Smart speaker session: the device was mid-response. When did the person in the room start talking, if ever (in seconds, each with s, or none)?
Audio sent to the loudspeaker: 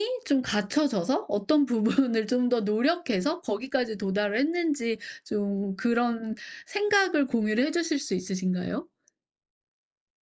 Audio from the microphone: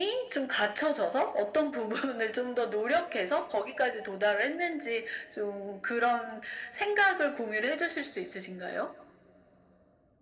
none